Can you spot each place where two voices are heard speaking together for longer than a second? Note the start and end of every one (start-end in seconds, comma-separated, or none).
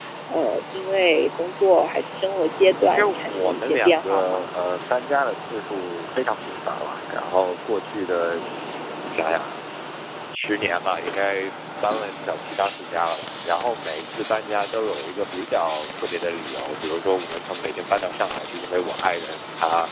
2.9-4.5